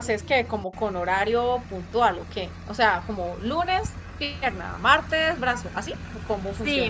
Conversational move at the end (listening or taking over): taking over